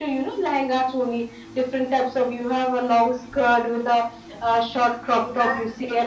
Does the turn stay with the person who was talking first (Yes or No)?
Yes